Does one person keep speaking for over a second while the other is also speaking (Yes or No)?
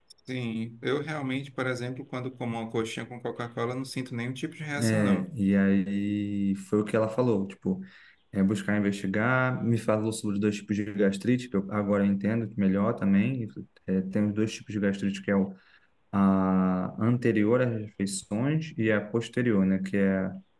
No